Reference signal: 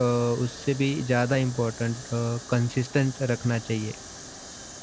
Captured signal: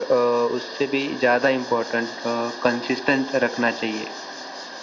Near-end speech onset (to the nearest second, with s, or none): none